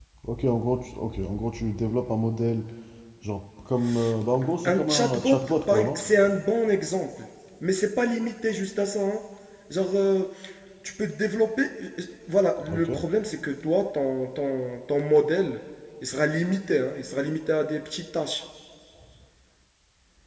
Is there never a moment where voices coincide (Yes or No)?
No